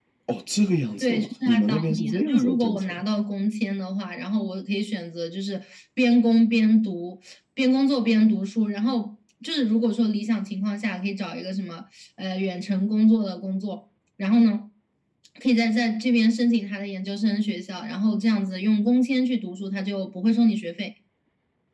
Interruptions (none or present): present